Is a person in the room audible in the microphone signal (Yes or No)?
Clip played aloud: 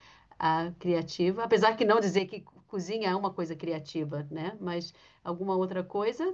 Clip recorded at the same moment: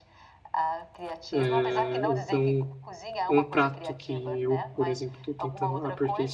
Yes